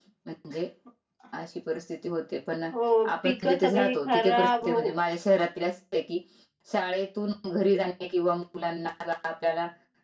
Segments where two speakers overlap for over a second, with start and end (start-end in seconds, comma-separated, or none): 3.2-4.8